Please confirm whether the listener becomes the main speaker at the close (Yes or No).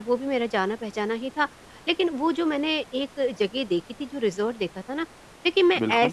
No